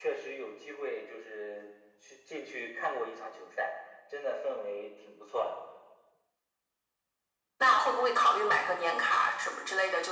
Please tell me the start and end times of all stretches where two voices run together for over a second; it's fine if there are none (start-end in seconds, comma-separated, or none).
none